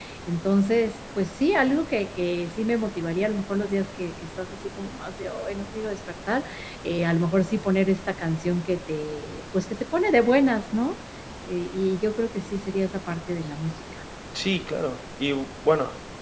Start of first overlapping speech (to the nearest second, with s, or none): none